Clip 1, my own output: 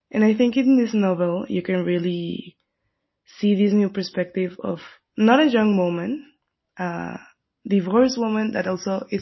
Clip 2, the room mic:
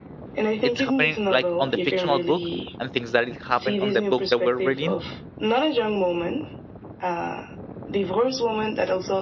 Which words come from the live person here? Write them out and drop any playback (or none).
it's happening like on the fictional book, and things that it happened on the book that we're reading,